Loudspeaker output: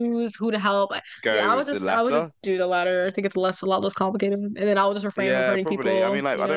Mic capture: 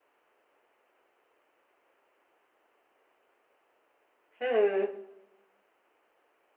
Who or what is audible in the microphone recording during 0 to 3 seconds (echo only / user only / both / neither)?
neither